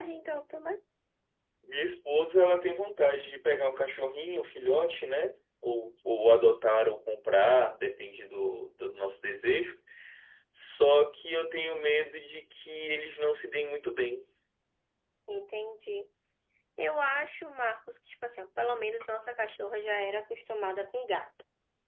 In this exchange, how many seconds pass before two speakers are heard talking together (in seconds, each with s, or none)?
none